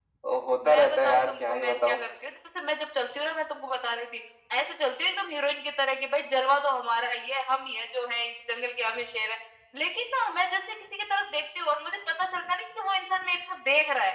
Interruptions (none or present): present